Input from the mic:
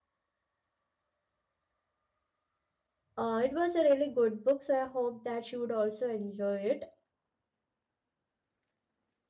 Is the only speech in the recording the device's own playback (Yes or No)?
No